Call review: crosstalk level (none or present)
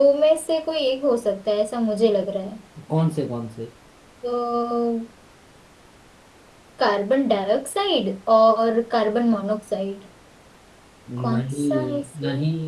present